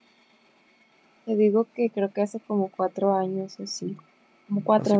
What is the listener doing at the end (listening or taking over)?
taking over